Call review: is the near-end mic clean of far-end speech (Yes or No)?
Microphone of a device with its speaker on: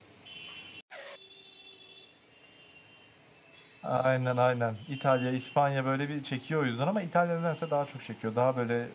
Yes